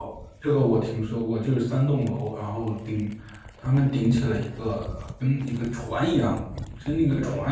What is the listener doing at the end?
listening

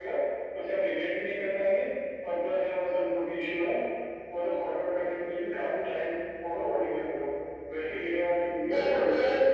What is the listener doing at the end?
taking over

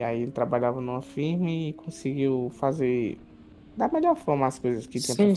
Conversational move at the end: taking over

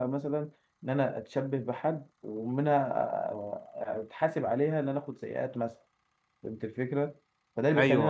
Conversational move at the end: listening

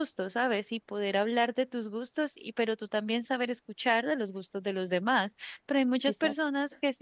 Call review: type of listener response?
listening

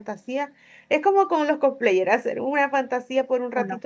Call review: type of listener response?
listening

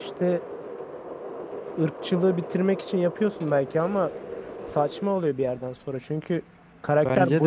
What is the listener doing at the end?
taking over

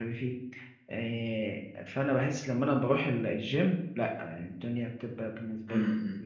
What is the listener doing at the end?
taking over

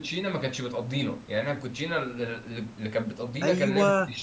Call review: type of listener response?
taking over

